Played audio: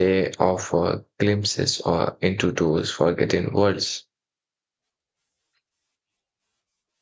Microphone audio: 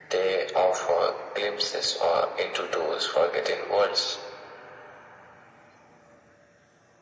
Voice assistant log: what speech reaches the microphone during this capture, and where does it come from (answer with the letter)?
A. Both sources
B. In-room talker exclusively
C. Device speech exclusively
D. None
C